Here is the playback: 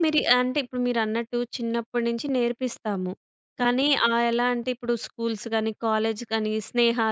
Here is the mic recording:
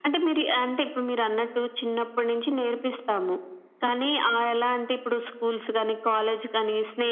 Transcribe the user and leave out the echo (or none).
none